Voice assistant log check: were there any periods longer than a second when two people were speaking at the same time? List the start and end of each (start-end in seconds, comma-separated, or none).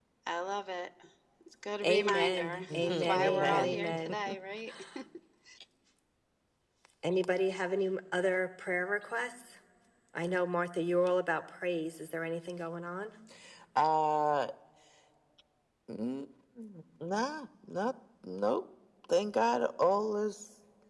1.8-4.1